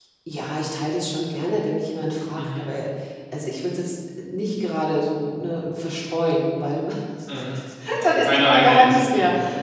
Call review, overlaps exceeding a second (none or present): present